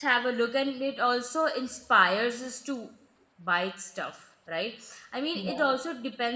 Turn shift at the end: No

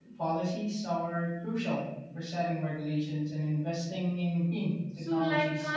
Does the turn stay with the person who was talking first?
No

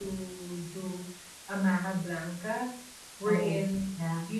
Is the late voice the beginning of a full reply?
No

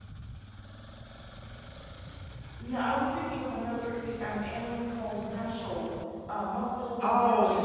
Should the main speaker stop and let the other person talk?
Yes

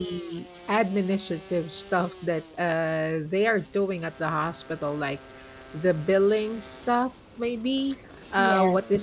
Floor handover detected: No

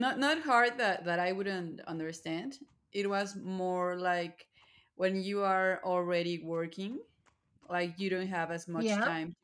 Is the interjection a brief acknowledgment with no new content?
Yes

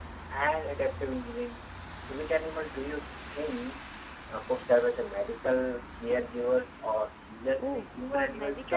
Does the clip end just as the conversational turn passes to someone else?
Yes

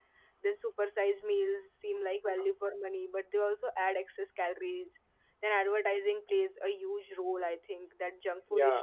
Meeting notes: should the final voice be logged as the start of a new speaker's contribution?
No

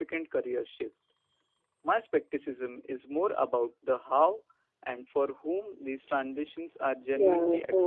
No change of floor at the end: No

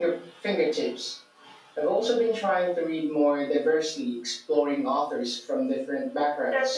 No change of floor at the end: No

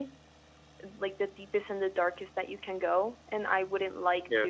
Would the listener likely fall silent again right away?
Yes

